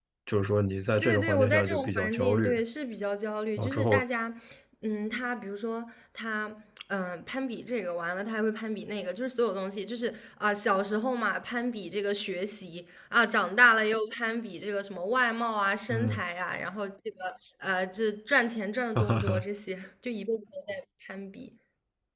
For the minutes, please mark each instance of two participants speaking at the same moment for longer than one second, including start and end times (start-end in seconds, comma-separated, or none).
1.0-2.6